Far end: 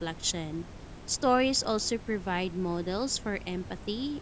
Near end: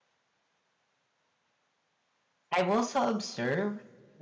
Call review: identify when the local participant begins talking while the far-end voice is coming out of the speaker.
3 s

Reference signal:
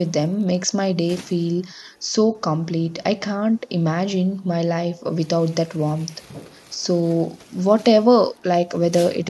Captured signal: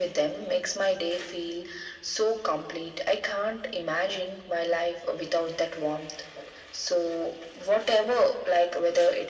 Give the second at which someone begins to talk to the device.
none

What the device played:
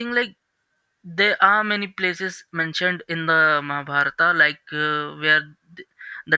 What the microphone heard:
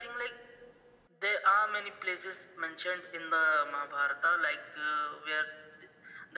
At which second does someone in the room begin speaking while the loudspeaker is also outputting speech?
none

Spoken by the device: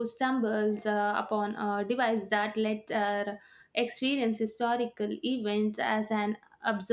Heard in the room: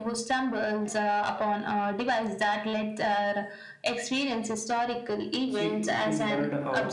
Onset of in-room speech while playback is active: 5 s

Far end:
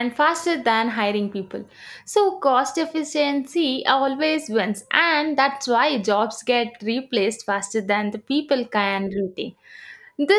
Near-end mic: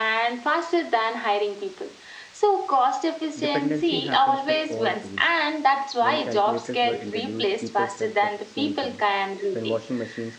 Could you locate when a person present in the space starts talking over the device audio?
3 s

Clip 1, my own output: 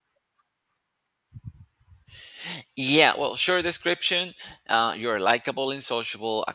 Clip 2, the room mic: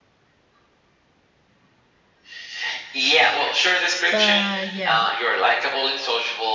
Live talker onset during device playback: 4 s

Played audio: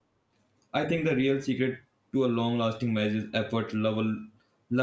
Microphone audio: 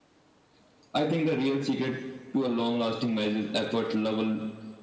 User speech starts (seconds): none

